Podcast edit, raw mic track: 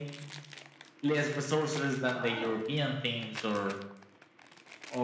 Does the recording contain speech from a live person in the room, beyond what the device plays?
Yes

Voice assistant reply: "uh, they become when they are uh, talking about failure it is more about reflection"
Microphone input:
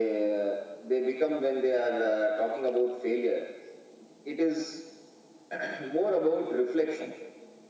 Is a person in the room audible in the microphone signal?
No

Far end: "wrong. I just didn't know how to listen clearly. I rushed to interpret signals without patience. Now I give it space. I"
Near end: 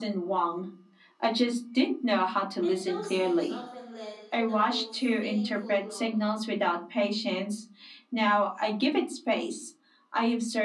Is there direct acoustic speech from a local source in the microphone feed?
Yes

